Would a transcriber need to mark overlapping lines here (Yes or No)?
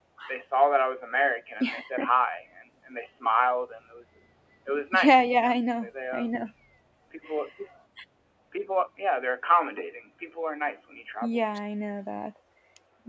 Yes